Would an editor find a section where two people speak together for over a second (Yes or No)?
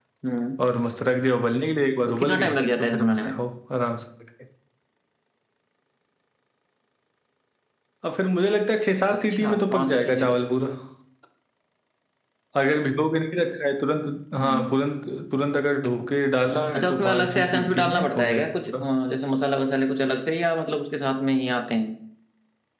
Yes